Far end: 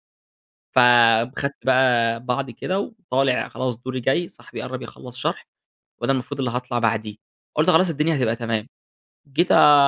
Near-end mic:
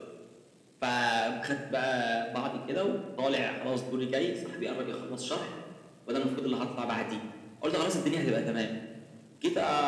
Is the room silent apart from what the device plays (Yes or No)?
Yes